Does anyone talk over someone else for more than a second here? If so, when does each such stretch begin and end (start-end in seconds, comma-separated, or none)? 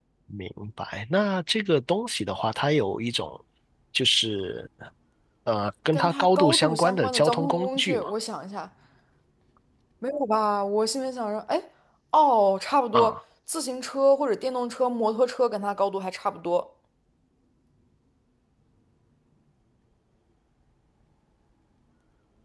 5.9-8.1